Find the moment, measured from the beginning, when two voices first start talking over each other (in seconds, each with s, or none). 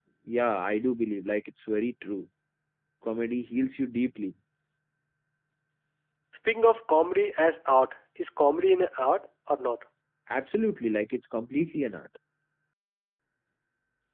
none